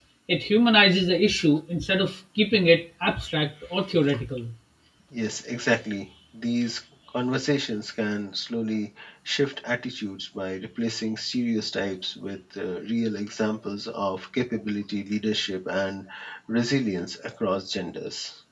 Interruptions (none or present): none